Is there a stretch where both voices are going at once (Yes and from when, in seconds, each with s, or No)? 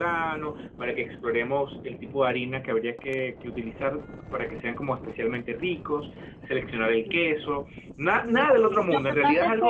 Yes, from 8.2 s